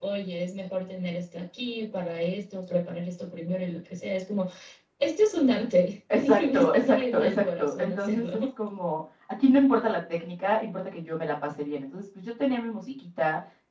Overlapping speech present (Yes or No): Yes